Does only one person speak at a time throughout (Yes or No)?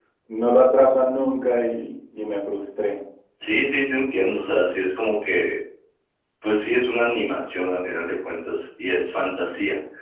Yes